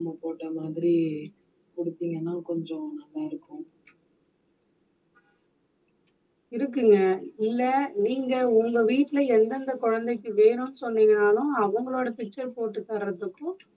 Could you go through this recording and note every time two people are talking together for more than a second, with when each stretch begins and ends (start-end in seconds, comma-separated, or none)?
none